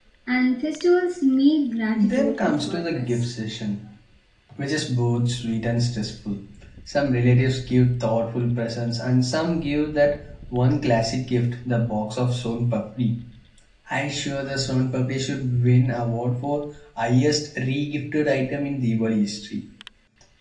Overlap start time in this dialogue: 2 s

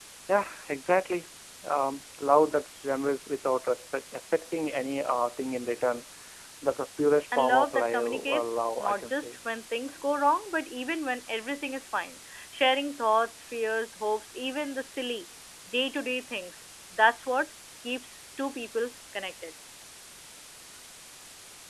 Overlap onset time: 7 s

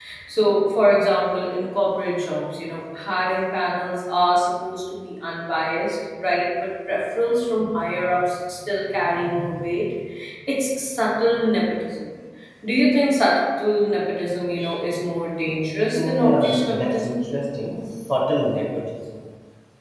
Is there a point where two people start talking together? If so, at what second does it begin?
16 s

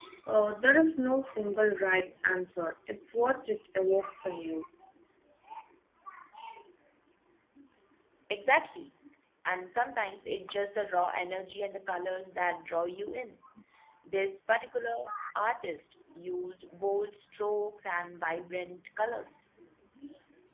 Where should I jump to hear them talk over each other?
none

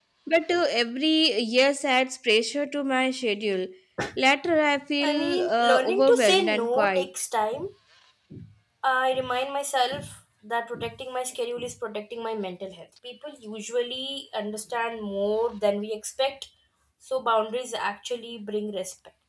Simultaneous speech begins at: 5 s

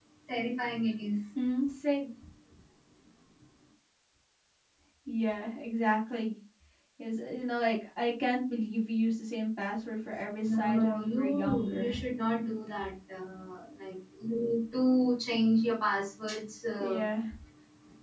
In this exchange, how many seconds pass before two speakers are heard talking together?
10 s

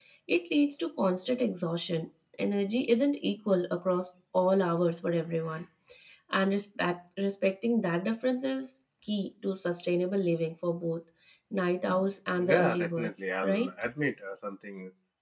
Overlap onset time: 12 s

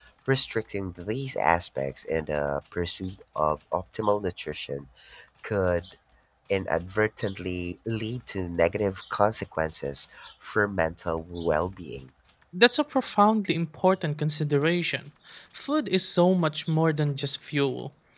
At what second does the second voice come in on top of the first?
none

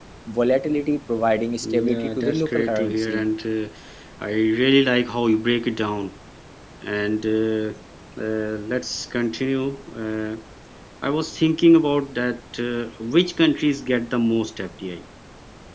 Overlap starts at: 2 s

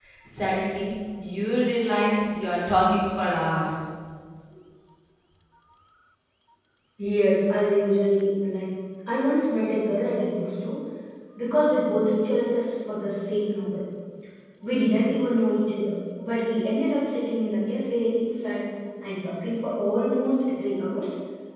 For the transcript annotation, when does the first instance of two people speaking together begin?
none

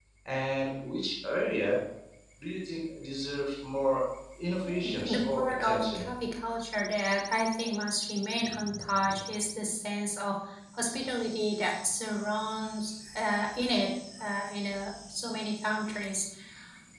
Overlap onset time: 5 s

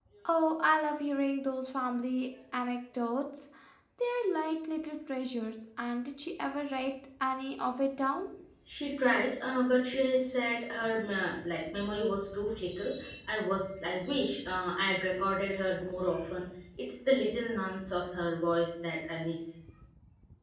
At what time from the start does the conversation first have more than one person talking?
none

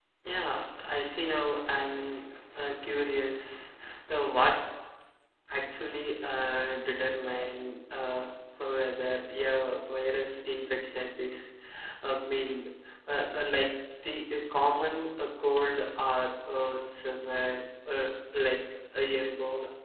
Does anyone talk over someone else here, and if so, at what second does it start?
none

